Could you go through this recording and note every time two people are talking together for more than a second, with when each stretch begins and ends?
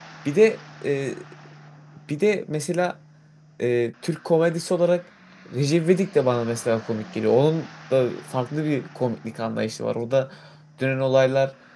none

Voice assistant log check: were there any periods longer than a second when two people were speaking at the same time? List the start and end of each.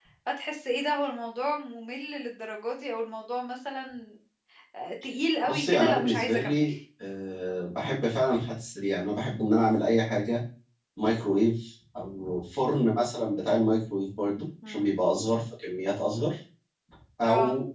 5.4-6.6

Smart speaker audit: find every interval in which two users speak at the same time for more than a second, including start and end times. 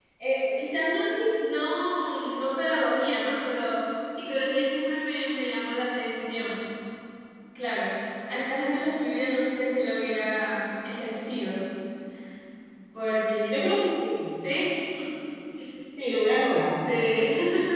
none

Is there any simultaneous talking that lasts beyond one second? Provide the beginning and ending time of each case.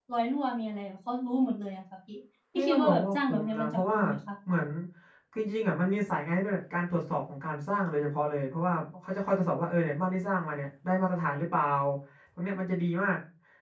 2.5-4.0

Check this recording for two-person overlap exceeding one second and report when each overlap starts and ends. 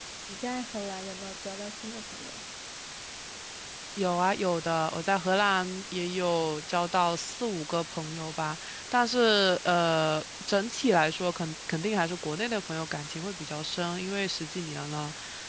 none

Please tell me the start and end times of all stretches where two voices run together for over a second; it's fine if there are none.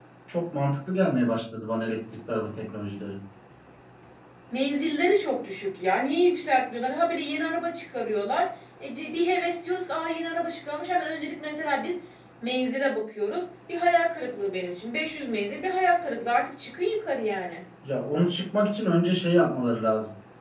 none

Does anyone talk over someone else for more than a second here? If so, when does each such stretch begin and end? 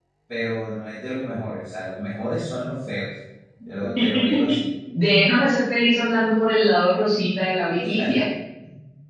none

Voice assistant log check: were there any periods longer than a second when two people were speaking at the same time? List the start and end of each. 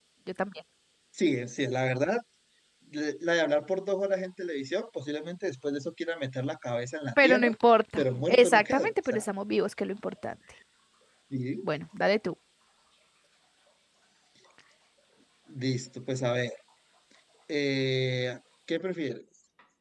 8.0-9.2

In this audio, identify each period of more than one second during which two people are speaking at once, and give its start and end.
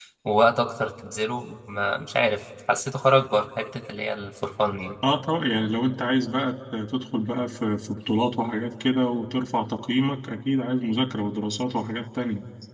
none

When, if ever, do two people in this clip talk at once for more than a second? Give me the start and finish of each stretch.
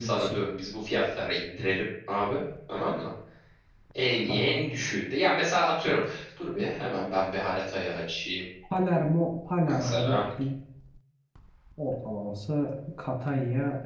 none

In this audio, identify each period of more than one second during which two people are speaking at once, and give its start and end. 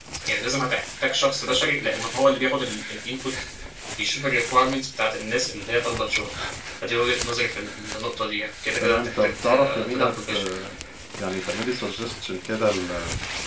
8.8-10.5

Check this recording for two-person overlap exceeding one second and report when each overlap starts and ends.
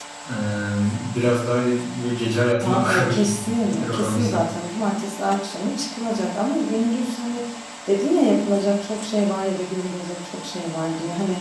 2.6-4.4

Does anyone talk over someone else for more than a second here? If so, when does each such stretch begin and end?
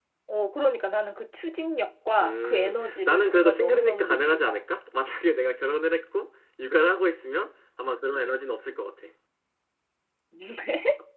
2.2-4.6

